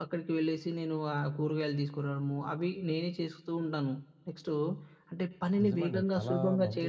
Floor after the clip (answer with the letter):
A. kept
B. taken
B